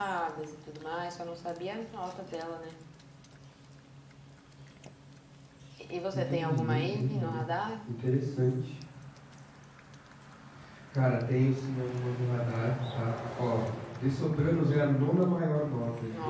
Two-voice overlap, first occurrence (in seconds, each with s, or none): 6.1 s